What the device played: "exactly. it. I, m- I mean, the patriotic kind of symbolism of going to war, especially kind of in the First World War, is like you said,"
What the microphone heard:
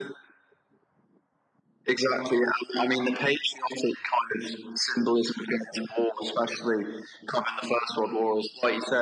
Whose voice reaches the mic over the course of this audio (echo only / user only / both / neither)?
echo only